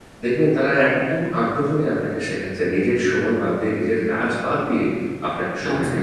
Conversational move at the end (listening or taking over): listening